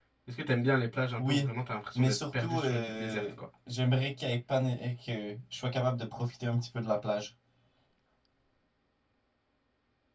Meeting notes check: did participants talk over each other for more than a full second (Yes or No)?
Yes